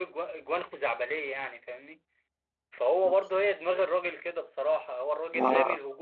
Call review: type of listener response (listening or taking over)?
listening